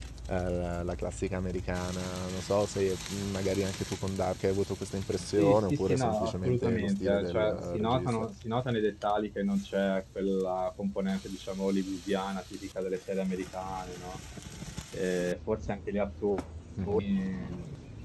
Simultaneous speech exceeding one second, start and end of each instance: 5.4-8.3

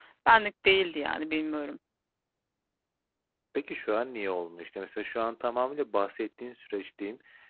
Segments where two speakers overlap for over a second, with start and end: none

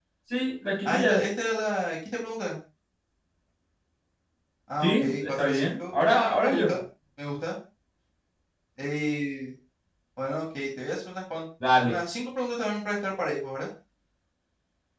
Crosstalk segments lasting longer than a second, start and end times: 4.8-6.7

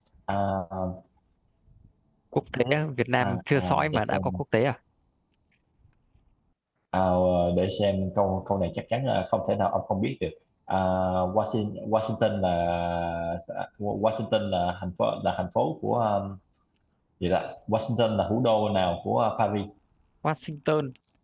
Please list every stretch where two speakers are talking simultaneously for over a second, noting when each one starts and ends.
3.2-4.4

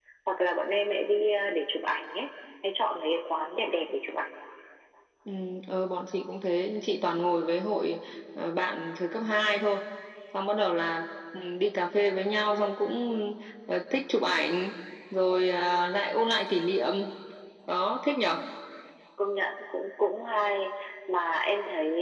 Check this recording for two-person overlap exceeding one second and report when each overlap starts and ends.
none

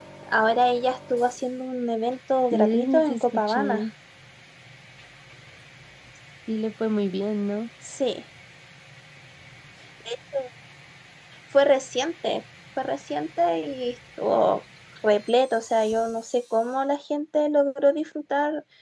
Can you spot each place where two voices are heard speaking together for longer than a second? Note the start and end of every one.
2.5-3.8

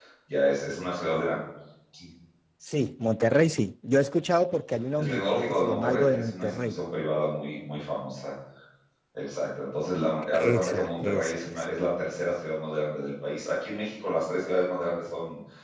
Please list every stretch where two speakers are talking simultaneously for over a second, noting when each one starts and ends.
5.0-6.8, 10.3-11.7

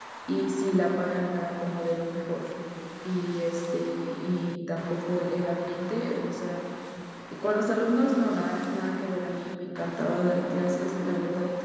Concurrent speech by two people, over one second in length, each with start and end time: none

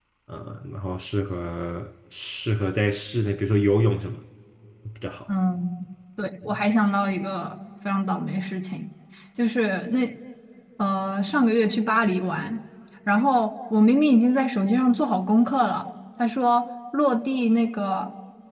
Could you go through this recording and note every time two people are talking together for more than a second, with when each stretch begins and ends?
none

